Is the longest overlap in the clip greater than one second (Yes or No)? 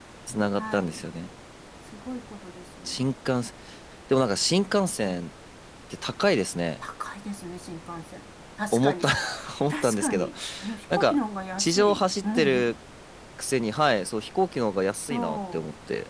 Yes